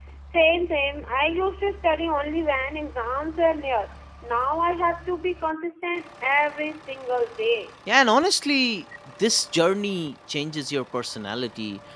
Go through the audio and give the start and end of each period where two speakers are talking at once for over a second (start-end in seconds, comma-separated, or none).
none